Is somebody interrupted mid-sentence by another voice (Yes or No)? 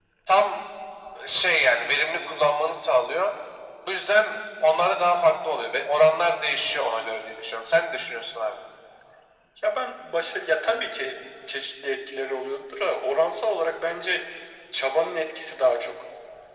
No